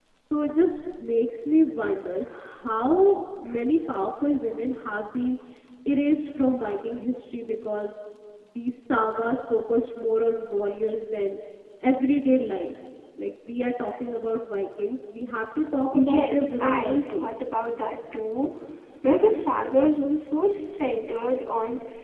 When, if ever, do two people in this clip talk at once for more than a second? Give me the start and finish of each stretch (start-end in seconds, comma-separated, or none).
15.9-17.3